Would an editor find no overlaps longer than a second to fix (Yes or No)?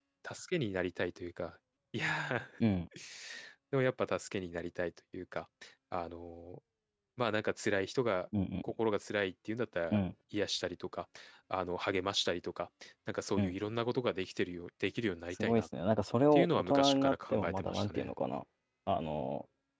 No